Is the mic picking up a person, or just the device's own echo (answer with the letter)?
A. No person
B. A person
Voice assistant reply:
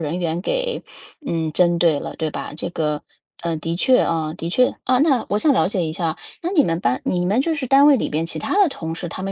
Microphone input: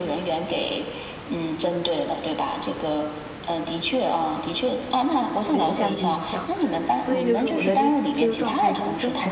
B